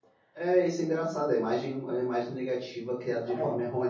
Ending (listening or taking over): listening